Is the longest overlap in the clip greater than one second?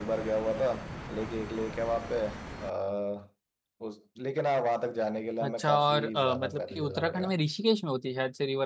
Yes, from 5.4 s

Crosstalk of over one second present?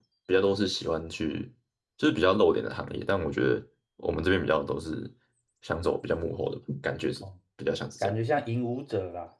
No

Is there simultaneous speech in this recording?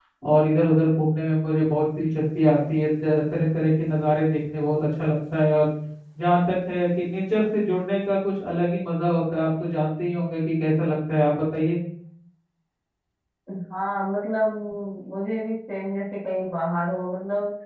No

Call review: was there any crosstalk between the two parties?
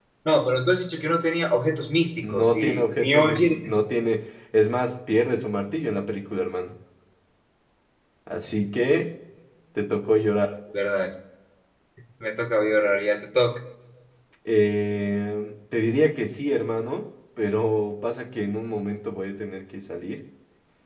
Yes, from 2.2 s

